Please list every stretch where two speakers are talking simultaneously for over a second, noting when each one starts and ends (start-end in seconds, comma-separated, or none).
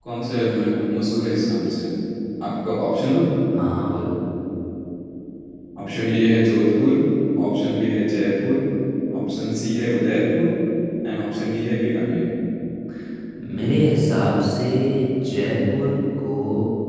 none